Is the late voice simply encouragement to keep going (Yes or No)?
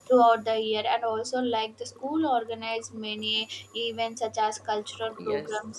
No